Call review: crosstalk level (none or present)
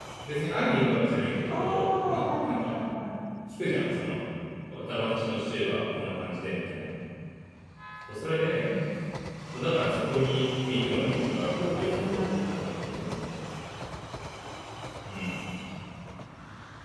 present